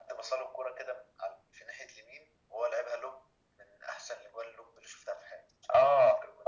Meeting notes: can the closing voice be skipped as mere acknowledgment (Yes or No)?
No